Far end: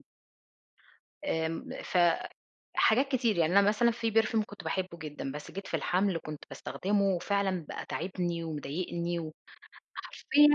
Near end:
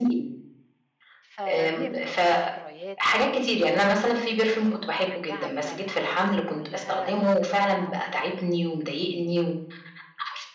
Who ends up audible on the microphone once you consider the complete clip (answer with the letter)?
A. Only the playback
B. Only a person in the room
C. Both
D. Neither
C